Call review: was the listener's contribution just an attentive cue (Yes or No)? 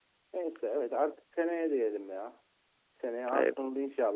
Yes